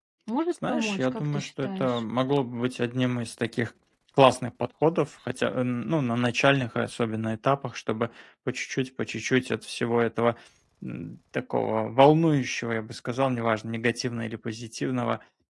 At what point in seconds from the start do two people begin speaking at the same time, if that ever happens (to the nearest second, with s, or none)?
1 s